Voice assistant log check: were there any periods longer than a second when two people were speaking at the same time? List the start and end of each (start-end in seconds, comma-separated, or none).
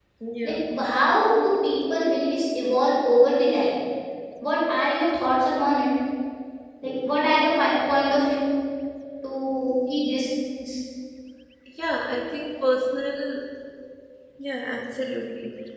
none